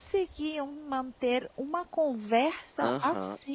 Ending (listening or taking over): taking over